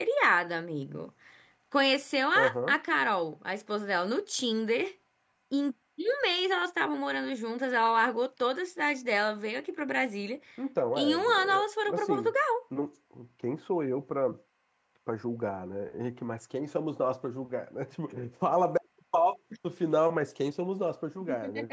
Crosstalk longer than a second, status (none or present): present